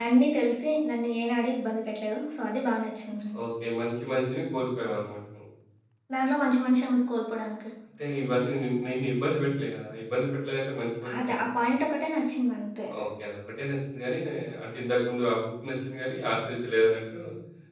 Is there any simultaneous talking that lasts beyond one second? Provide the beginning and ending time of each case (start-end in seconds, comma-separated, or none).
none